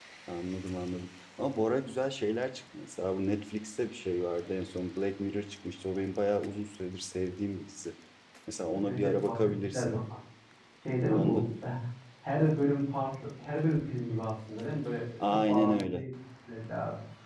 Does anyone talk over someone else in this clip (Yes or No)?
Yes